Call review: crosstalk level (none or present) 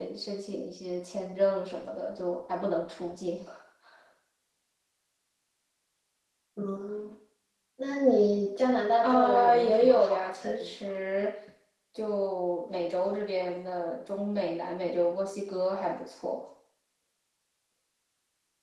present